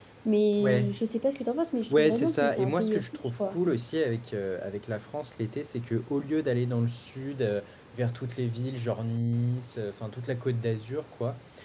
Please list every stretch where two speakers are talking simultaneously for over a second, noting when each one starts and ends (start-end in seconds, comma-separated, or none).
1.9-3.6